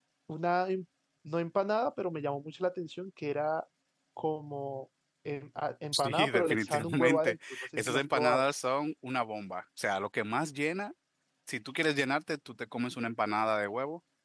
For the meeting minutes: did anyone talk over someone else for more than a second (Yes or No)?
Yes